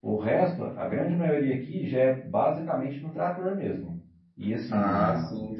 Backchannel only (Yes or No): No